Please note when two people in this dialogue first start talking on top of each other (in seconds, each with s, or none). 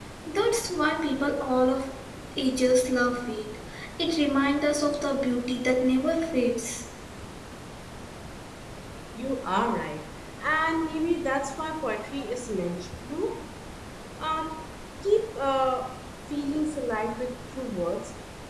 none